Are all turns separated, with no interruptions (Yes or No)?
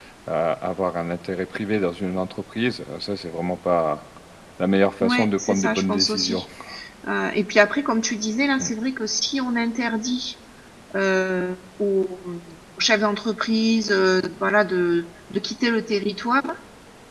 No